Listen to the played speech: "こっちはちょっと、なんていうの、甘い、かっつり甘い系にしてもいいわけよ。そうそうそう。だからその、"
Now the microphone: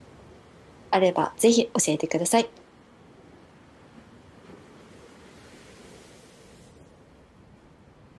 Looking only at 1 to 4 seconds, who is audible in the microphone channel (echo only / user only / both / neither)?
user only